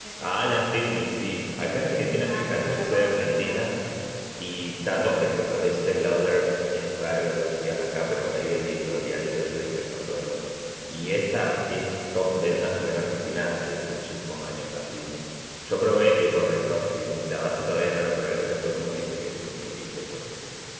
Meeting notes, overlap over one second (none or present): present